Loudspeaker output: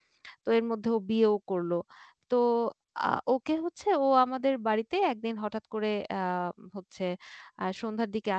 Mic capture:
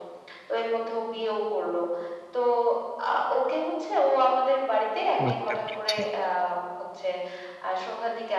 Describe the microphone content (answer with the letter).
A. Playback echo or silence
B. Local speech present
B